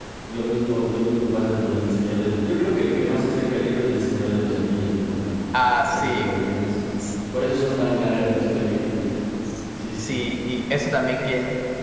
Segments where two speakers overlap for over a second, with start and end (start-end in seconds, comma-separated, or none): none